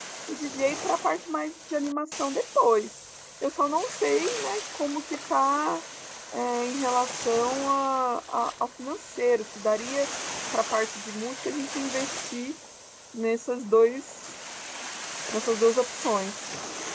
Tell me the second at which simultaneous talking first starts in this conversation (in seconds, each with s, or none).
none